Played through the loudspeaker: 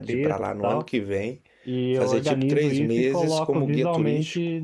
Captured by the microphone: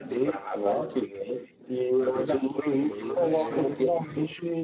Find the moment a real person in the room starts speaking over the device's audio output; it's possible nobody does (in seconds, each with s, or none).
2.8 s